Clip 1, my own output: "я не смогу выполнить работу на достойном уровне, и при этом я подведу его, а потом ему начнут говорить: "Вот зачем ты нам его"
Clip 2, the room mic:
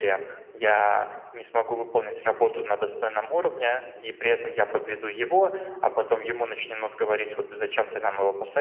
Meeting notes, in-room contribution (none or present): none